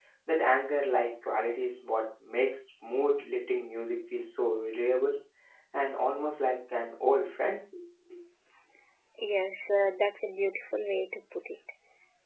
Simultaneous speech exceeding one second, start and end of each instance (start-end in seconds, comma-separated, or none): none